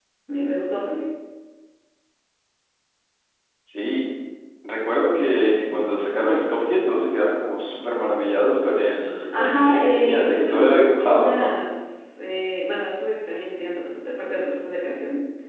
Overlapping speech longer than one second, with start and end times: 9.3-11.5

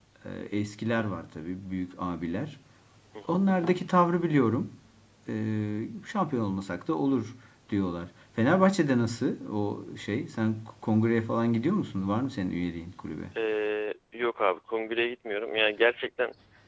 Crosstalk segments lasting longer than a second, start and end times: none

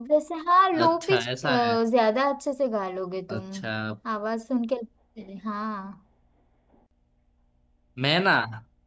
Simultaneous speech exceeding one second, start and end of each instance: none

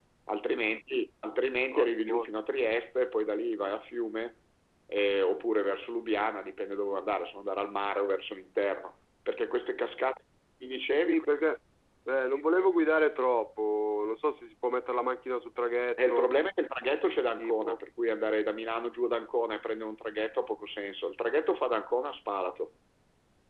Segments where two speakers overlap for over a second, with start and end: none

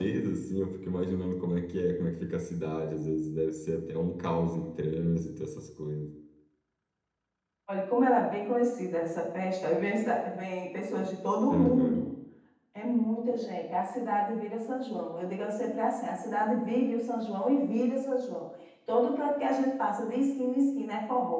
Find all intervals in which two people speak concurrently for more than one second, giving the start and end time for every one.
none

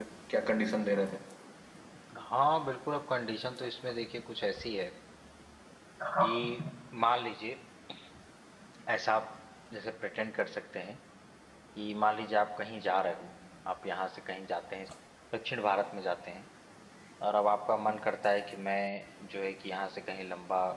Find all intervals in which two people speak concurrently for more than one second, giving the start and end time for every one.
none

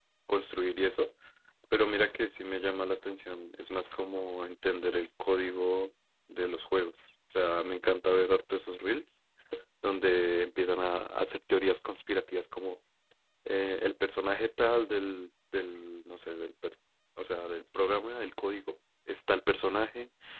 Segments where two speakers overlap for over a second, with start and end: none

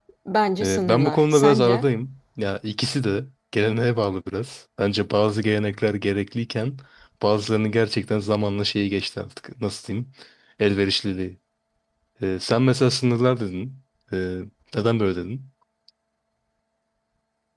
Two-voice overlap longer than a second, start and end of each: 0.6-1.9

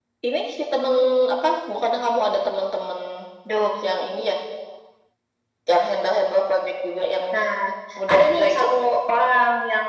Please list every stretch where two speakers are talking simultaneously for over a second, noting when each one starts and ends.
none

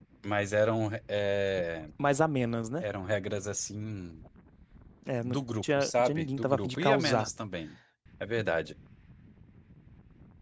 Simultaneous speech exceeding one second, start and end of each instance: 5.2-7.3

